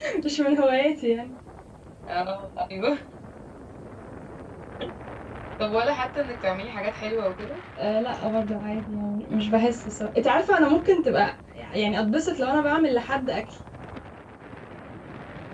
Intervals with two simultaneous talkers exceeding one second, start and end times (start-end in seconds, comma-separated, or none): none